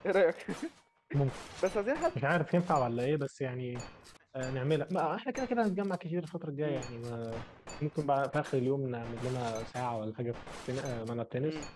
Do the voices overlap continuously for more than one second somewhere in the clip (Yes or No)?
No